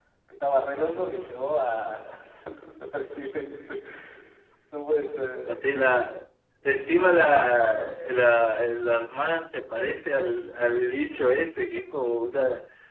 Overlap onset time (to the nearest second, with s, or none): none